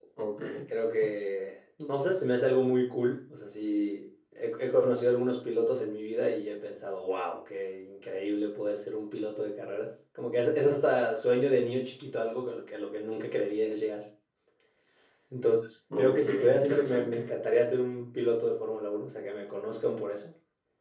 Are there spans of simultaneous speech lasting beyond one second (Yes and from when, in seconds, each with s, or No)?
Yes, from 16.0 s